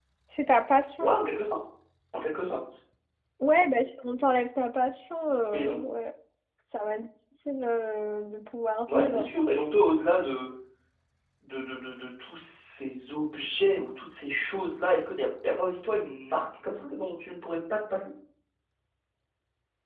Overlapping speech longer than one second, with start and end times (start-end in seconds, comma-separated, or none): none